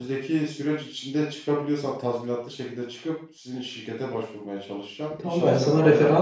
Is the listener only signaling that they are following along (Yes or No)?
No